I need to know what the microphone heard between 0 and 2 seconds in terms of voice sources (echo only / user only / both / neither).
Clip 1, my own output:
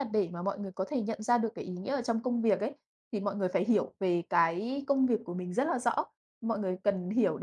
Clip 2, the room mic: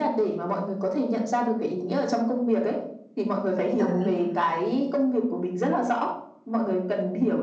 echo only